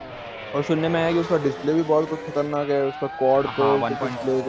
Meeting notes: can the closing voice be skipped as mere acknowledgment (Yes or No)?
No